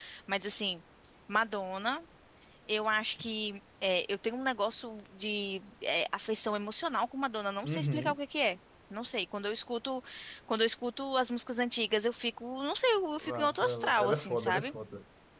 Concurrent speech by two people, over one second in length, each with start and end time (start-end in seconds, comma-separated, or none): 13.2-14.7